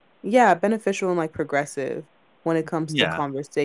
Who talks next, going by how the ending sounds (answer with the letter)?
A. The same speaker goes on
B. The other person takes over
A